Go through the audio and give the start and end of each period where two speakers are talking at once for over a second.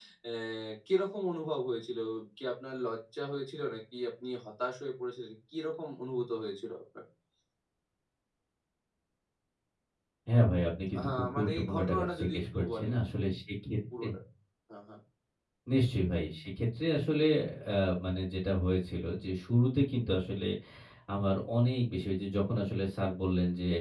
11.0-13.0

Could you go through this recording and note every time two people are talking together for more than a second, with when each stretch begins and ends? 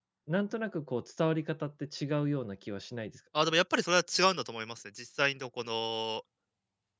none

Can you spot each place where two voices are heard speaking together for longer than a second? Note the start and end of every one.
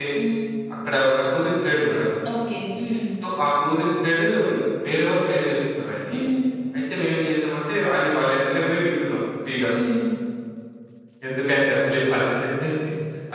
none

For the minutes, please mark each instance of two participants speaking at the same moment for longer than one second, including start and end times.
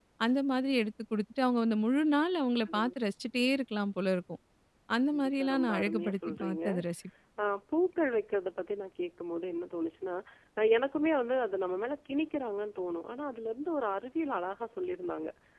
5.1-6.6

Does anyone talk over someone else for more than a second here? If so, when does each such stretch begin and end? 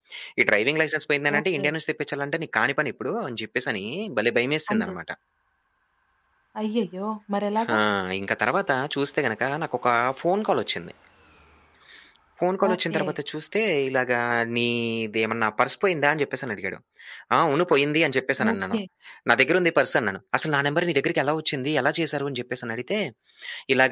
none

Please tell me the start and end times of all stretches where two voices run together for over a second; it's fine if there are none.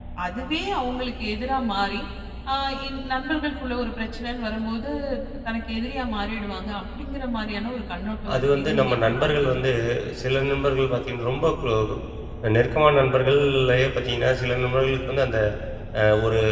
8.3-9.6

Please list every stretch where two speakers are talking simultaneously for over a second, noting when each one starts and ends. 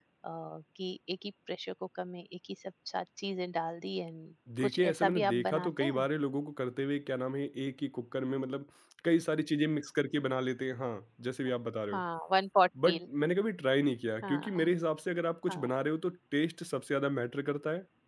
4.6-6.1

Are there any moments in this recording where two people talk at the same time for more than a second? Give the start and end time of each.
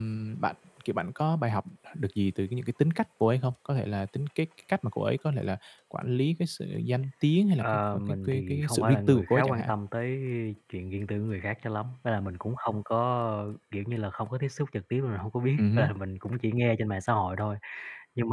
7.6-9.7

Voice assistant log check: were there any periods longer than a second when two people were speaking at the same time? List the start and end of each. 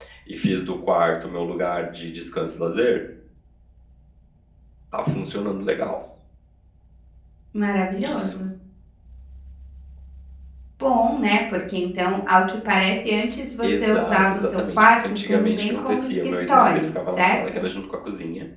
13.6-17.6

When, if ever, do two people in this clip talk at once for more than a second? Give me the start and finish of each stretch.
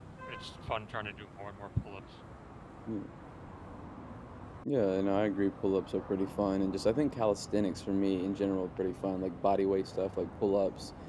none

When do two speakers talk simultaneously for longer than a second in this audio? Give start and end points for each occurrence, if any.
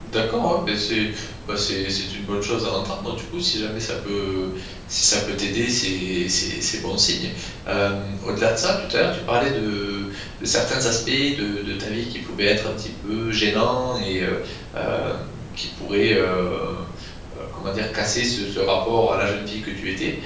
none

